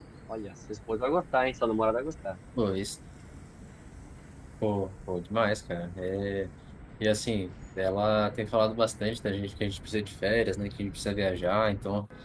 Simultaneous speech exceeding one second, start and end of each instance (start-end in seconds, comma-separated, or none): none